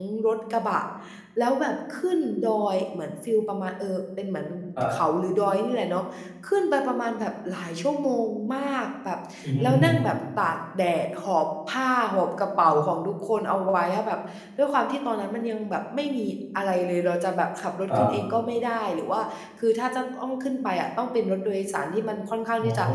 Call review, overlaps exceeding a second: none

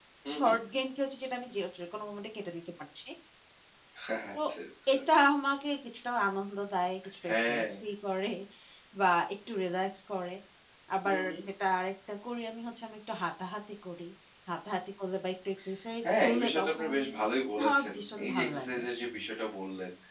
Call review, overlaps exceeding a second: present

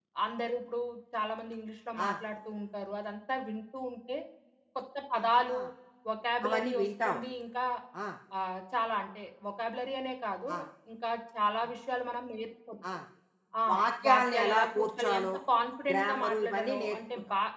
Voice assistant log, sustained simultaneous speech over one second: present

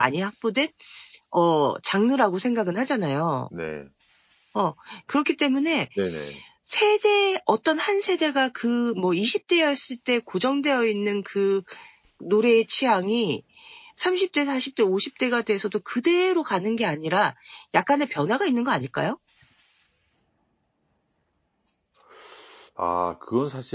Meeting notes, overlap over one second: none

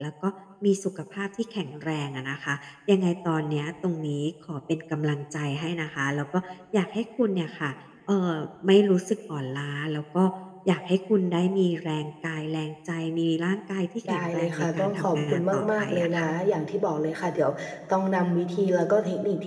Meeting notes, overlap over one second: present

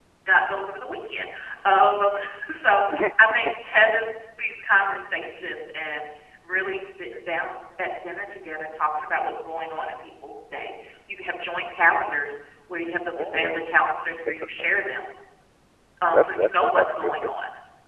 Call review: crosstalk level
present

